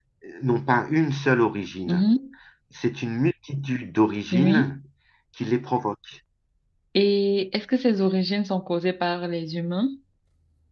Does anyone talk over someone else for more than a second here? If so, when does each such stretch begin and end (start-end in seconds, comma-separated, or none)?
none